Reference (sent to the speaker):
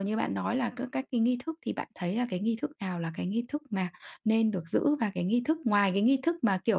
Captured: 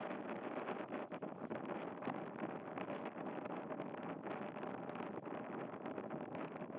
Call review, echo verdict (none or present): none